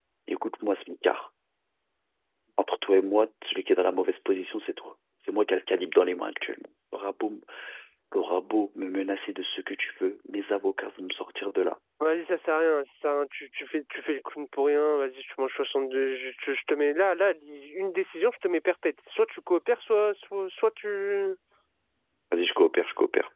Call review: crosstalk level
none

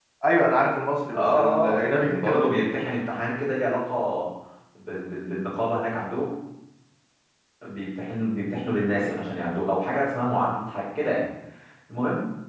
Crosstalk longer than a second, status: present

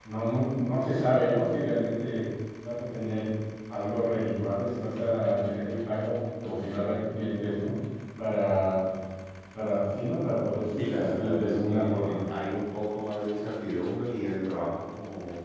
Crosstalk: present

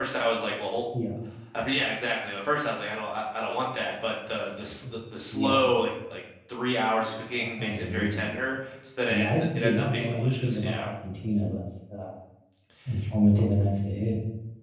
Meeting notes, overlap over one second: present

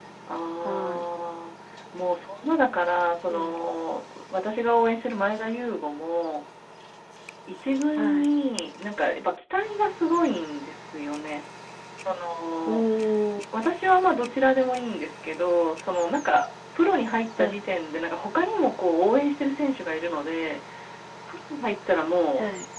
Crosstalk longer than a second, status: none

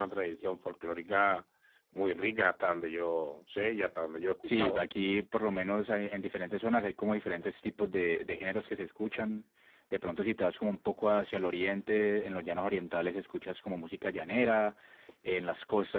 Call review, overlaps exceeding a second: none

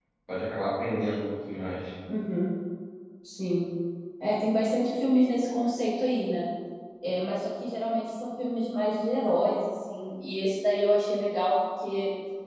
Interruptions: none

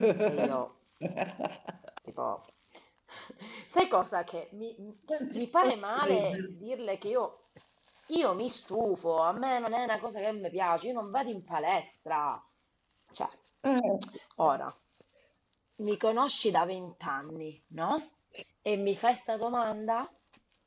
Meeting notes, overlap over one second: present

